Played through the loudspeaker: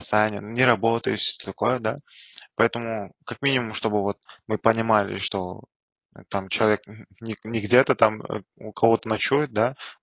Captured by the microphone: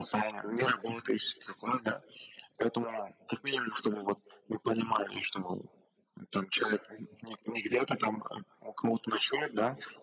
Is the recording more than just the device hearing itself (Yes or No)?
No